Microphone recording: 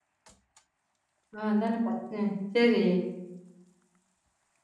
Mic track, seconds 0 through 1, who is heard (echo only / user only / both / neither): neither